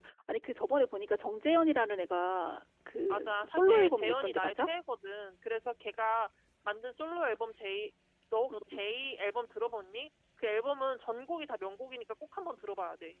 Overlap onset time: 3.1 s

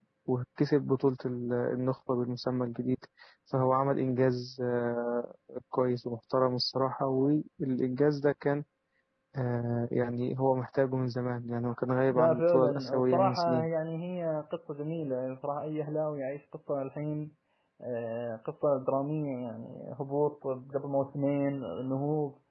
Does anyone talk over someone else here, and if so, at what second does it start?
12.1 s

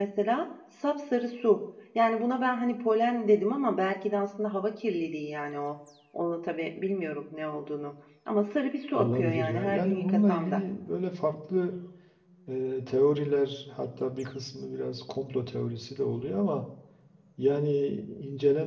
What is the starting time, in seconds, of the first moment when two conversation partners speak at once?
8.9 s

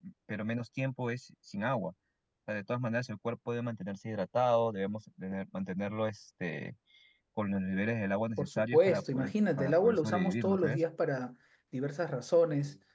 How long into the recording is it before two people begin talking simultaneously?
8.4 s

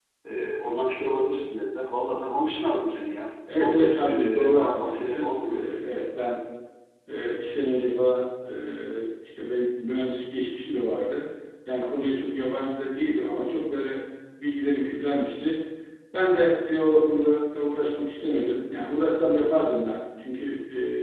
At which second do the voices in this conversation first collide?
3.5 s

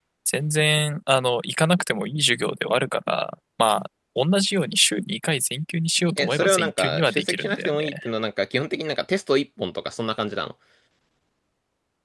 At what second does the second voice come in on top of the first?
6.2 s

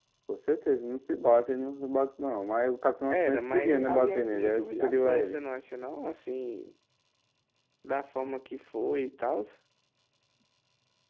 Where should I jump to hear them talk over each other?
3.1 s

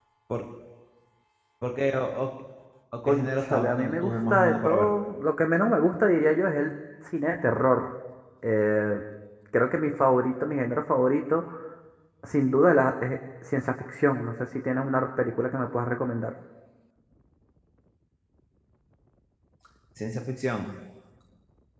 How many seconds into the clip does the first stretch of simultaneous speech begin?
3.1 s

